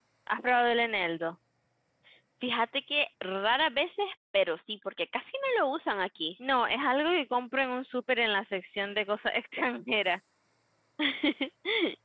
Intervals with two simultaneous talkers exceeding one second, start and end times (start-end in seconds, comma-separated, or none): none